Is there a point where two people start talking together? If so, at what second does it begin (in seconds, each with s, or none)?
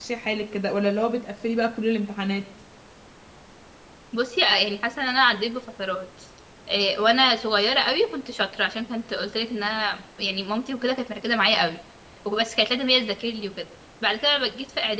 none